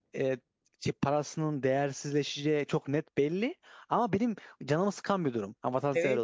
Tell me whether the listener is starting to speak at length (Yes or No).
Yes